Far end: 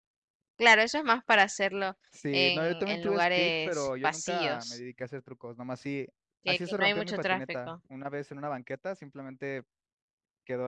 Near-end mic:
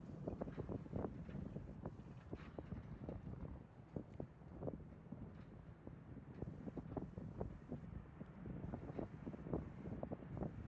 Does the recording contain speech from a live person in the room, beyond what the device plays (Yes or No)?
No